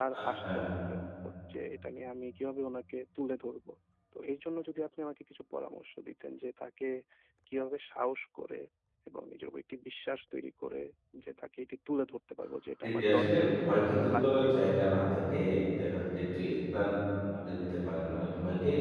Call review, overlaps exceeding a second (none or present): present